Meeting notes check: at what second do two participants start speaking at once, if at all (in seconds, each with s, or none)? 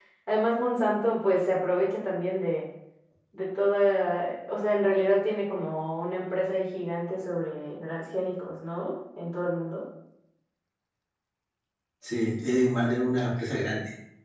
none